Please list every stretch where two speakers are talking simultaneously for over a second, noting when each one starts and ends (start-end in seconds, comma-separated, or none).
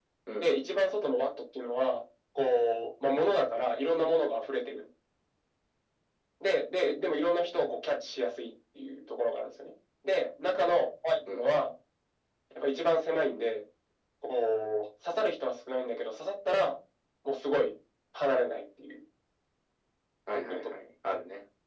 none